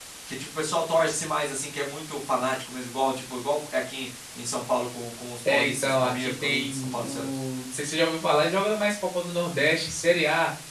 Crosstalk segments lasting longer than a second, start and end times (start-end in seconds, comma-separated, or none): 5.5-7.2